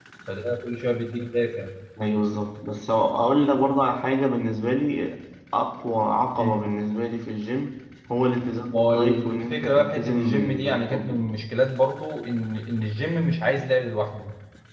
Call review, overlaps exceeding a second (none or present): present